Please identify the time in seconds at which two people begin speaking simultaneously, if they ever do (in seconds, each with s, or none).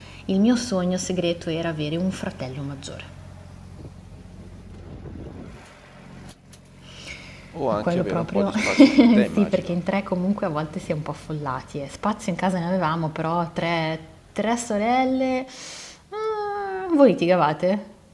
7.7 s